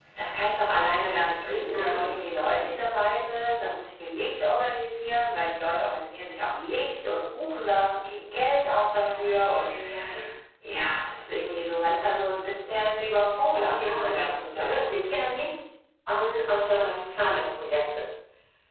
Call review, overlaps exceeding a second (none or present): present